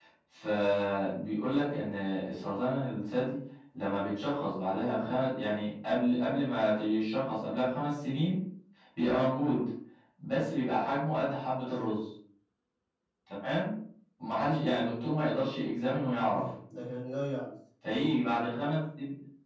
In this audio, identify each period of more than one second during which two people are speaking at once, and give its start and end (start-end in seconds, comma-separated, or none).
none